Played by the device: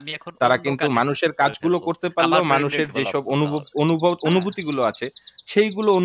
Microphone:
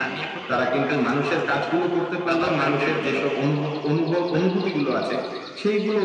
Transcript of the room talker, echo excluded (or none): none